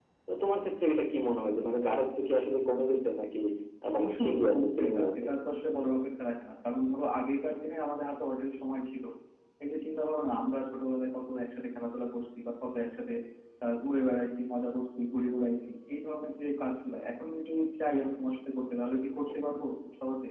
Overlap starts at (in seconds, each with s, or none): 4.0 s